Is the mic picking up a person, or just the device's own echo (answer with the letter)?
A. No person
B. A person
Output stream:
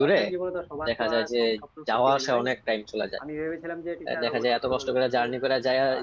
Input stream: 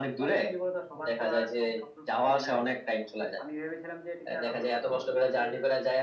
A